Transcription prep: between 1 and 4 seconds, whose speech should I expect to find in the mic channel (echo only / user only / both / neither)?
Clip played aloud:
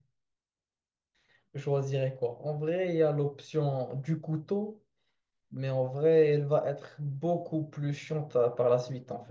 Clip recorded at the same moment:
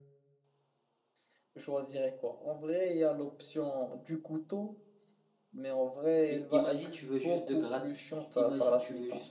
echo only